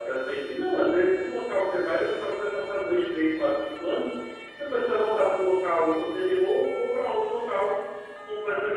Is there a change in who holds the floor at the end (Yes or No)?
No